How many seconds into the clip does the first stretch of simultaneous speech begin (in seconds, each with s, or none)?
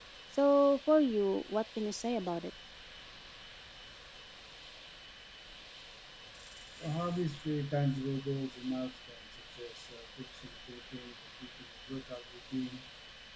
none